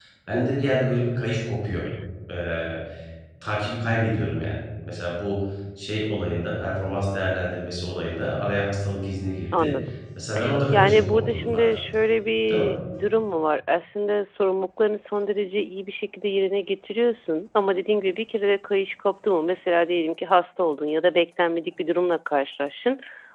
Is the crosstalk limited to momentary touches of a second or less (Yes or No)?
No